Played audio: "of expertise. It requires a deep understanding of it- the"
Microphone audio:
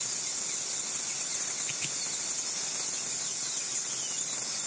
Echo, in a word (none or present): none